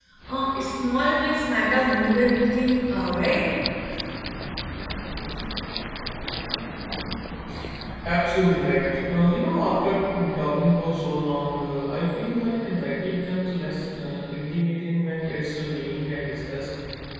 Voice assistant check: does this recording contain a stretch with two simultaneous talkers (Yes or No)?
No